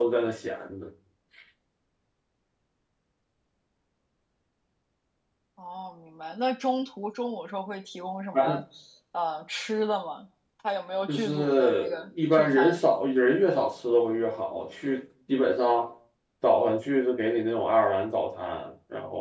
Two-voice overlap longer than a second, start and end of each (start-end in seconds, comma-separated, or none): 11.1-12.8